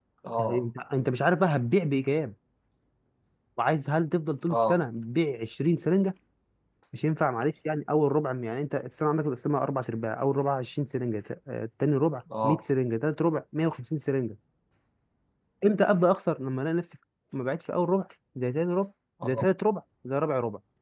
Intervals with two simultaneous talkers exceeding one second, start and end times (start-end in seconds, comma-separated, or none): none